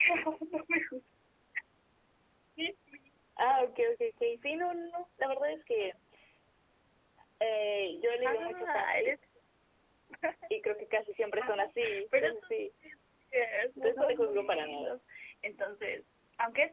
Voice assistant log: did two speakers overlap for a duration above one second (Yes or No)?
Yes